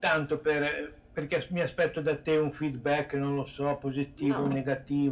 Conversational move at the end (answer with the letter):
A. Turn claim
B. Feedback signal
B